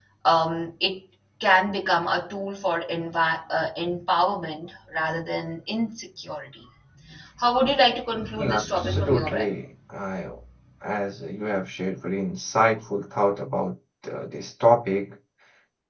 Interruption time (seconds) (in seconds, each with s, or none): 8.4 s